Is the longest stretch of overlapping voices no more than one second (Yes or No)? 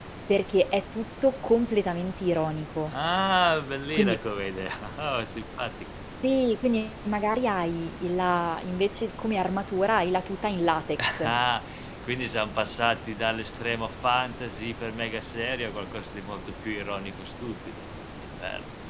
Yes